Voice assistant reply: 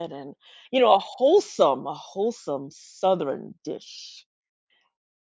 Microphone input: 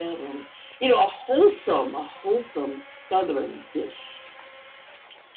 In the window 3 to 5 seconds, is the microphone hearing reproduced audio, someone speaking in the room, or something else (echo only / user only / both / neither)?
echo only